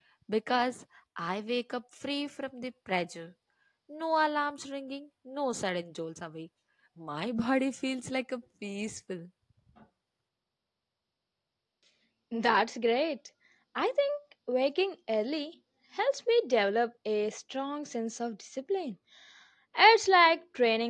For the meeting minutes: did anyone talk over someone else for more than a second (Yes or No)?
No